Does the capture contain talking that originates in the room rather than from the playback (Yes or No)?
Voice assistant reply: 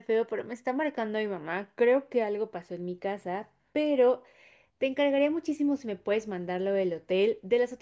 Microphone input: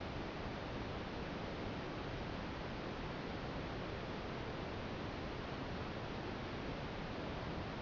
No